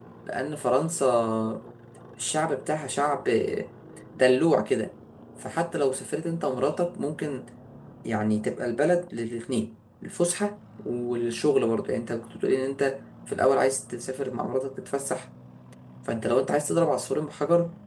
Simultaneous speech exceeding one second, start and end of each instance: none

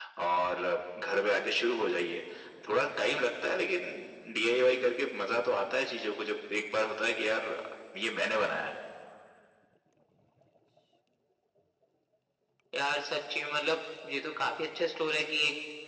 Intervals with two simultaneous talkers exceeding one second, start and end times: none

